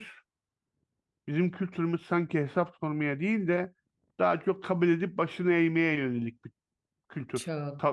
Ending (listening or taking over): taking over